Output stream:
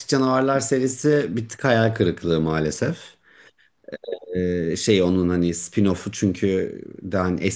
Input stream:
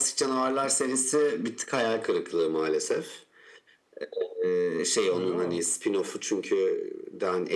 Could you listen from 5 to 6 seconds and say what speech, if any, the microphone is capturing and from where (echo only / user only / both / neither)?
both